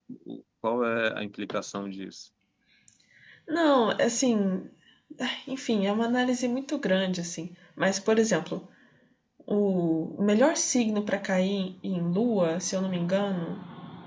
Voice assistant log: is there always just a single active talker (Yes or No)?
Yes